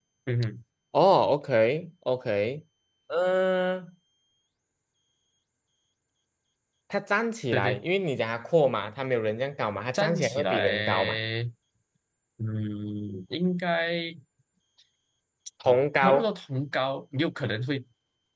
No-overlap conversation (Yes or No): No